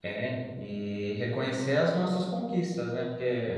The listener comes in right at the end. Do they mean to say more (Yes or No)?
No